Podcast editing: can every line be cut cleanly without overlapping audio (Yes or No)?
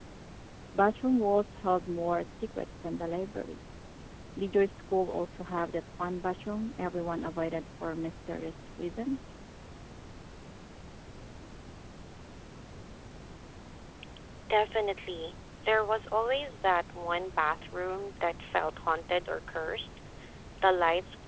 Yes